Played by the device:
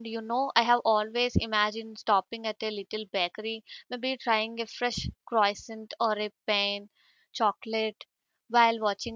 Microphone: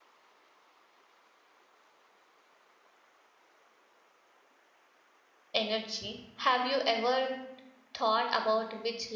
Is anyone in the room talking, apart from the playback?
Yes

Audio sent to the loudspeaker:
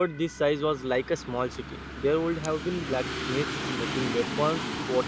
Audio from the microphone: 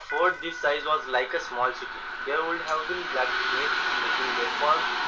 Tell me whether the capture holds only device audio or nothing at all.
Yes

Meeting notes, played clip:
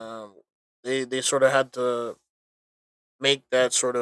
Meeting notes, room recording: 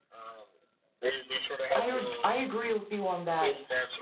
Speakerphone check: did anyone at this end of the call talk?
Yes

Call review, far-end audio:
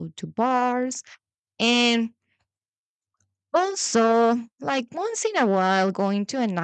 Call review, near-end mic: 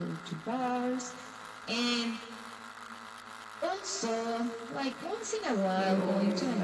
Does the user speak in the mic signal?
Yes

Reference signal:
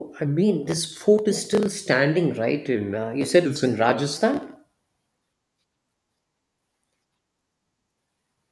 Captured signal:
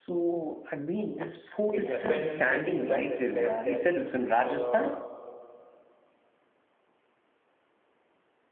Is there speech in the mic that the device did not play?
Yes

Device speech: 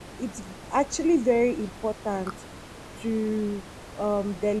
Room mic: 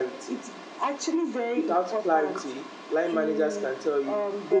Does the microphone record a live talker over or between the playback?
Yes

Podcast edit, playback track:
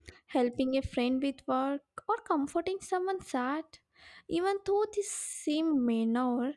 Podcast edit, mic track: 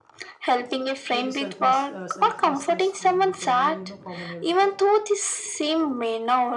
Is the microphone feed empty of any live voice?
No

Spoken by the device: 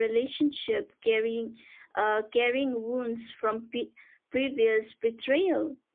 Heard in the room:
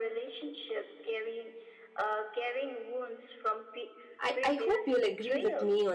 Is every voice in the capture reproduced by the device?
No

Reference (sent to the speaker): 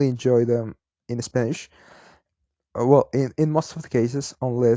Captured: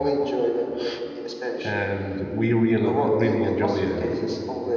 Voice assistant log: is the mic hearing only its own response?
No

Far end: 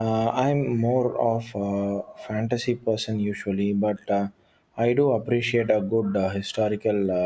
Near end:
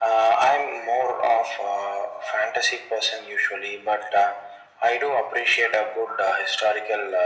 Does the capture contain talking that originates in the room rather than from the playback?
No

